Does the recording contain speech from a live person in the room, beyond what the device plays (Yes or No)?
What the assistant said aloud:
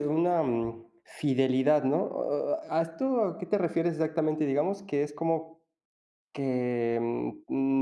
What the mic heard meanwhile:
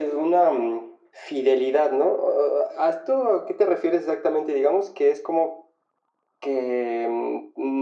No